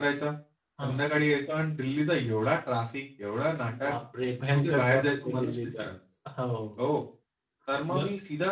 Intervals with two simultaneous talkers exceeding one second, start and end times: 4.5-5.9

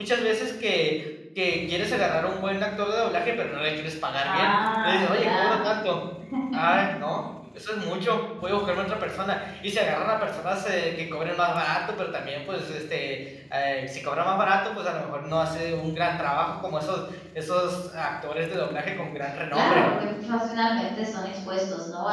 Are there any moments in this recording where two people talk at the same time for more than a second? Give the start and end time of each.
4.2-5.6

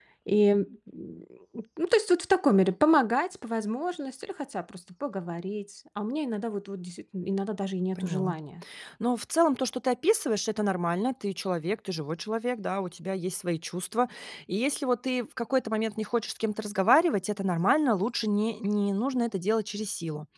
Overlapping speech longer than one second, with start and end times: none

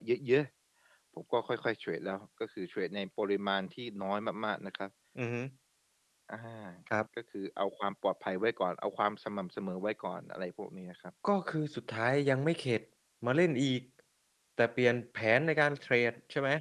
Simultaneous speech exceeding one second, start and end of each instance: none

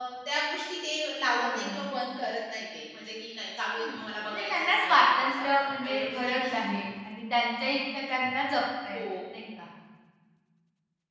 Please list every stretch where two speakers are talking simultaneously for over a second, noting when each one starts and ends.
4.3-6.6

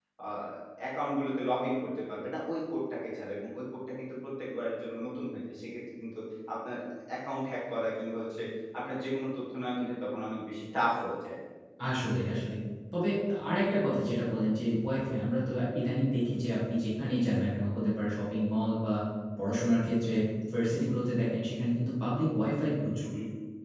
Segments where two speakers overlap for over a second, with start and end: none

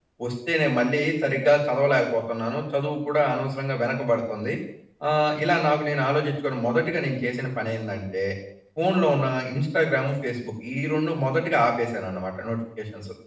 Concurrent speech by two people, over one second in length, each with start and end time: none

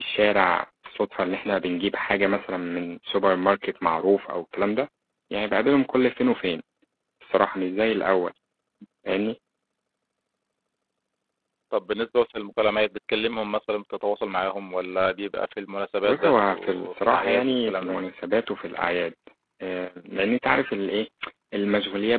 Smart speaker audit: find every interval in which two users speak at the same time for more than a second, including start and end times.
16.0-18.0

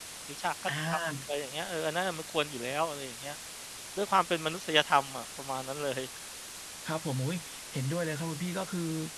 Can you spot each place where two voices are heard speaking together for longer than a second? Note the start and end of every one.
none

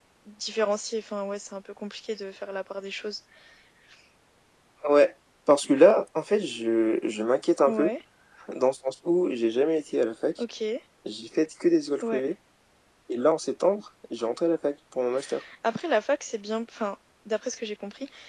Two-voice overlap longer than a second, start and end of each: none

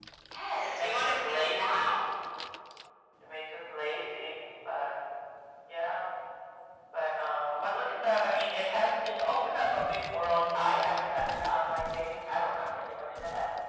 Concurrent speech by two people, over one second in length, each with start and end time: 0.7-2.0

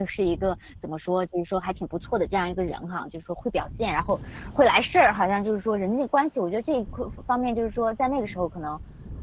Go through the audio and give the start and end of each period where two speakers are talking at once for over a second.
none

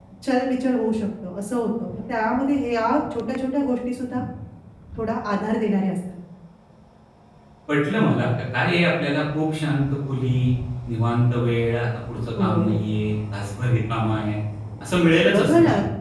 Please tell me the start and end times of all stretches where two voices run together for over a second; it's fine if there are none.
none

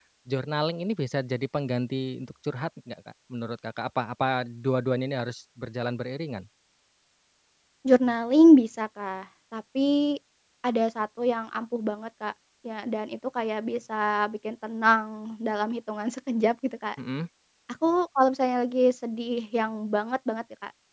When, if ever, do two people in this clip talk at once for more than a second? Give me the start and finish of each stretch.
none

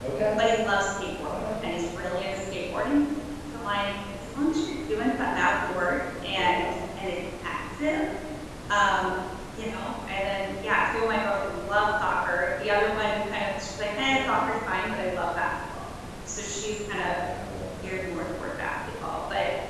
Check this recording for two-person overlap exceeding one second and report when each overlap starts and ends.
none

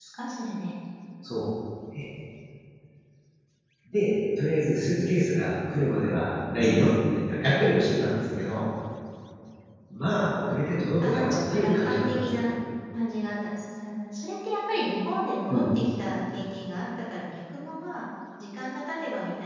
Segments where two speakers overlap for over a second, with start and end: 11.0-12.5

